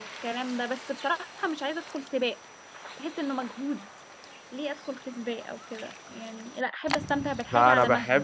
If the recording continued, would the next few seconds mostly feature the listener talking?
Yes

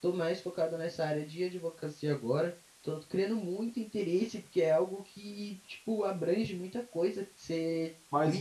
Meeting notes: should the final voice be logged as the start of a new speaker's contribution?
Yes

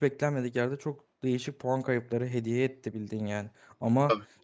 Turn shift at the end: No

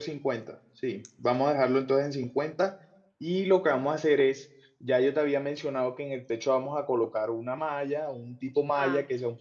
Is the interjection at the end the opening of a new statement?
No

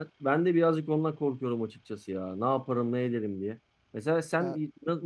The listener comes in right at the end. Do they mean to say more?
No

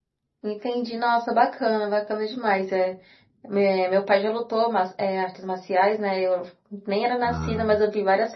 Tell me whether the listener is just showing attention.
Yes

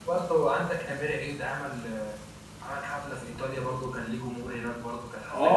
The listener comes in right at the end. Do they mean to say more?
Yes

